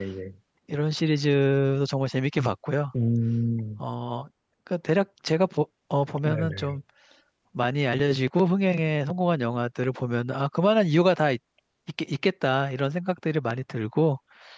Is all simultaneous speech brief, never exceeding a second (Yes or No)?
Yes